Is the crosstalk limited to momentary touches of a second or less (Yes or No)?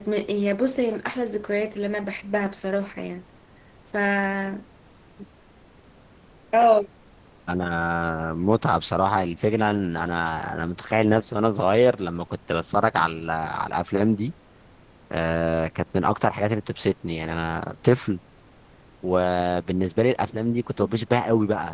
Yes